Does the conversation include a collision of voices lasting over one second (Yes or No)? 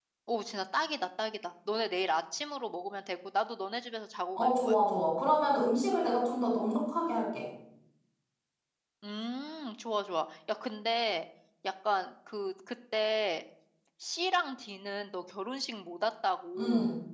No